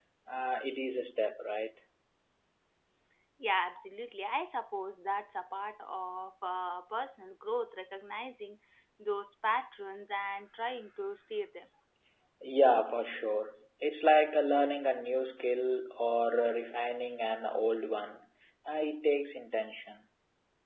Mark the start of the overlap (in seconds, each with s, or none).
none